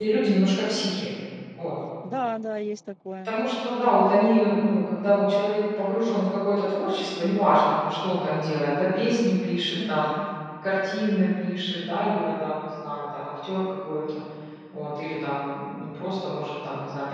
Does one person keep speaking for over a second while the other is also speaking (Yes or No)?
No